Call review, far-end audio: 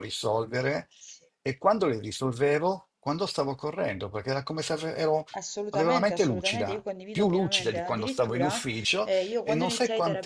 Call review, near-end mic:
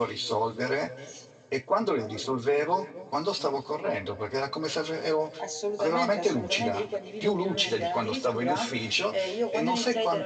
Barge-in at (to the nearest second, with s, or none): none